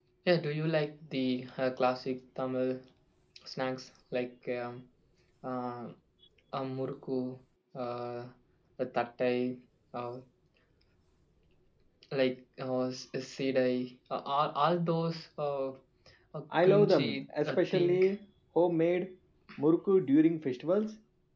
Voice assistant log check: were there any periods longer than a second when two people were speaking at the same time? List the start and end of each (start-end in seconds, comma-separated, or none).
16.6-18.1